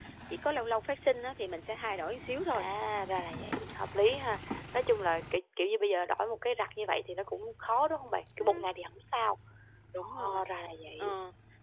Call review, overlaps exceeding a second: none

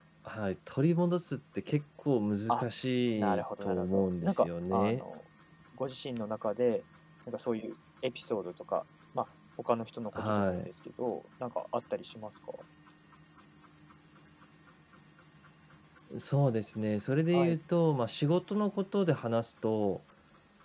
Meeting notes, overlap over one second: present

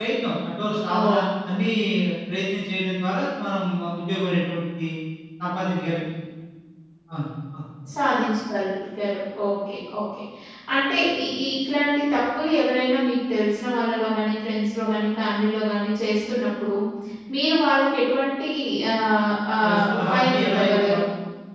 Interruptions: present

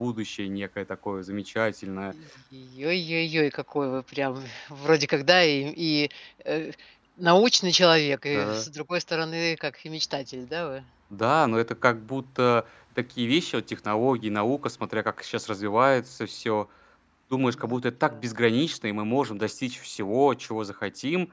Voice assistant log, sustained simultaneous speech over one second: none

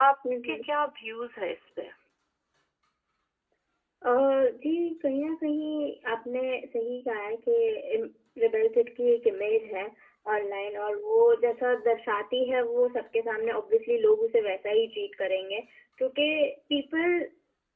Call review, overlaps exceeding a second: none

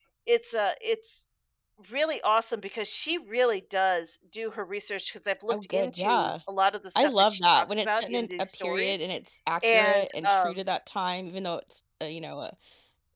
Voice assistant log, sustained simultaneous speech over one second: present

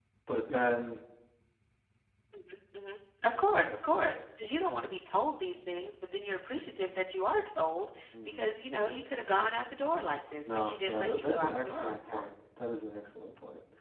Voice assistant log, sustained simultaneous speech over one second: present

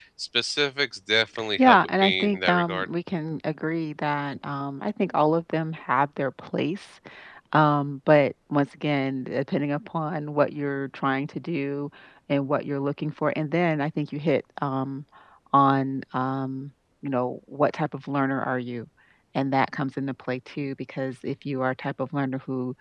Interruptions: present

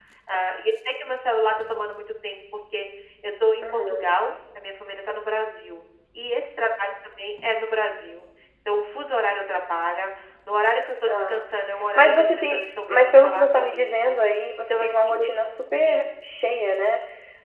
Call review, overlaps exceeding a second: present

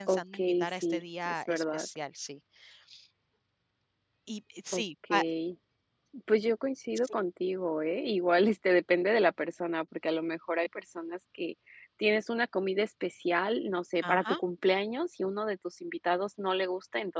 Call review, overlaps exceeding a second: present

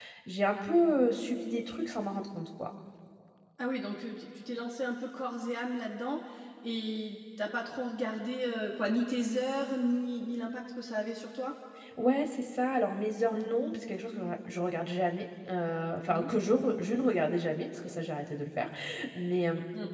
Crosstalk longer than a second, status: none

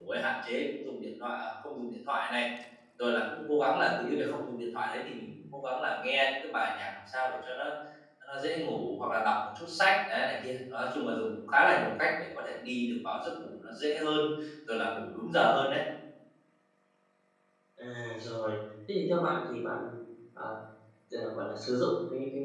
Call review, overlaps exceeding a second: none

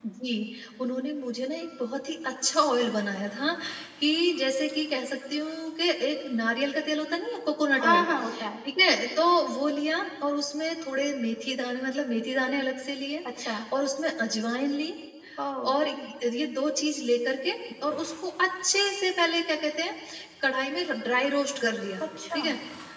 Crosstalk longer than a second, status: none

